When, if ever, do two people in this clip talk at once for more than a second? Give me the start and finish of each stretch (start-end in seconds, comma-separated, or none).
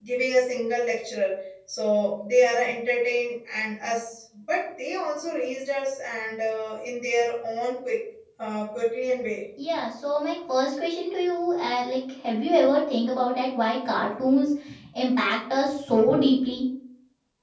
none